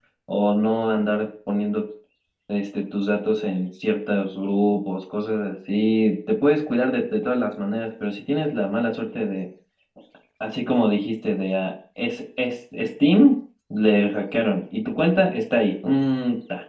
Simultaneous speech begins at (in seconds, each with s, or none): none